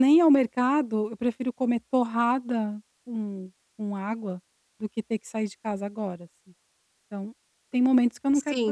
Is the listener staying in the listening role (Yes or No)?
No